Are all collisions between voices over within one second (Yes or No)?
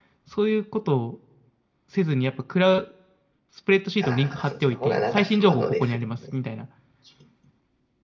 No